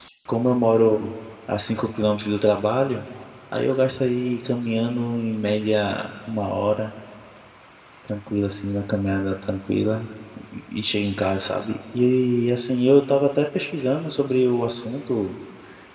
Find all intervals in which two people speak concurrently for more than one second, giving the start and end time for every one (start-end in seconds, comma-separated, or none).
none